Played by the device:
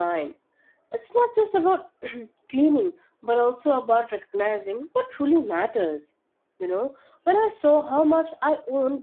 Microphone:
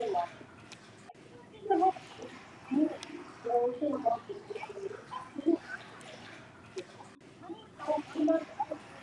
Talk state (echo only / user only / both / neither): echo only